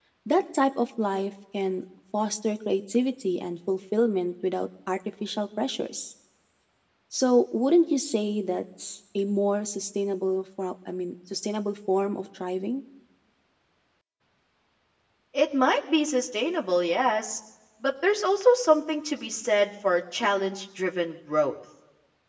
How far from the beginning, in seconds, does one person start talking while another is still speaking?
none

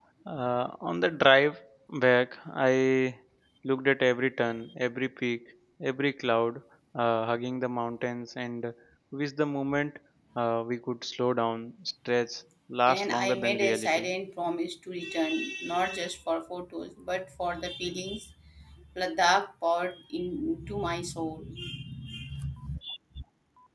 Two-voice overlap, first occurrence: 12.9 s

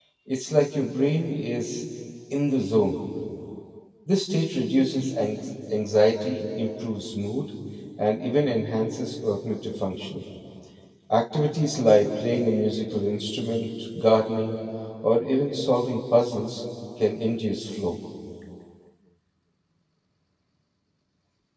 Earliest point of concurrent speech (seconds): none

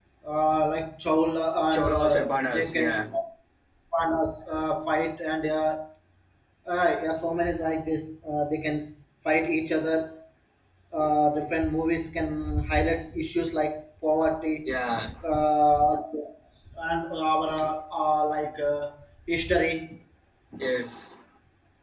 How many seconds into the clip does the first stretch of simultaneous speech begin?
1.7 s

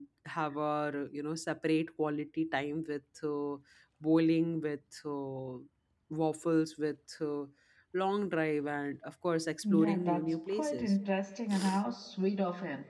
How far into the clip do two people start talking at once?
9.6 s

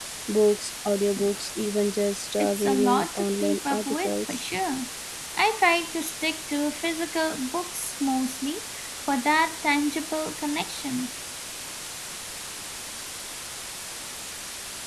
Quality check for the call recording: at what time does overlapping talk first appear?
2.4 s

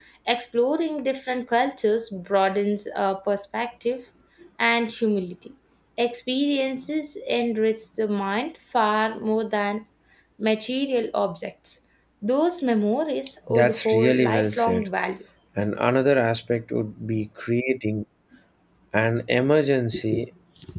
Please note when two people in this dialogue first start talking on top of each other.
13.5 s

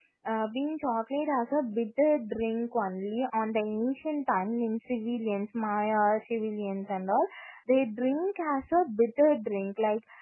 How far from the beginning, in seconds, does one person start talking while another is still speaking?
none

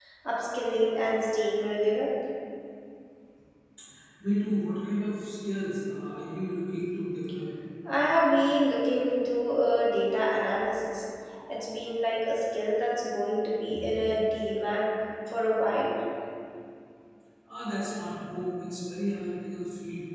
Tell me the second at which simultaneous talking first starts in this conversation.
none

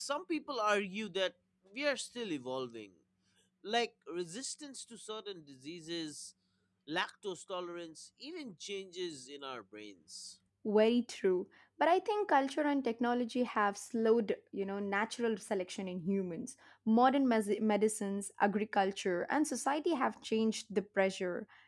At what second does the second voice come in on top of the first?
none

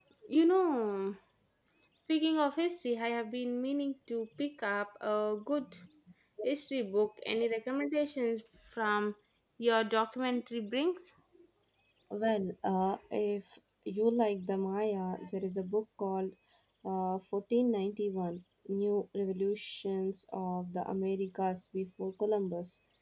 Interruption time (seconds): none

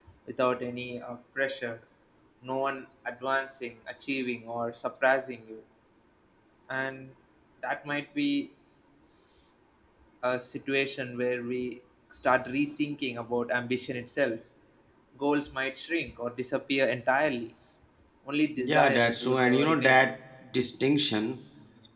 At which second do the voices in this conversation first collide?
18.6 s

